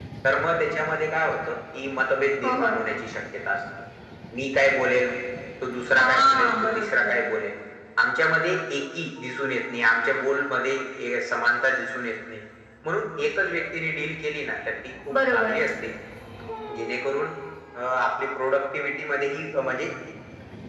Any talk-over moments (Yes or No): Yes